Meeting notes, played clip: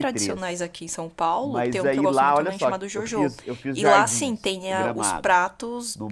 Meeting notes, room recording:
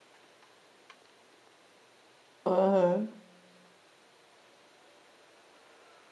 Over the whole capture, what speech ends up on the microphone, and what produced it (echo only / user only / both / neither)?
user only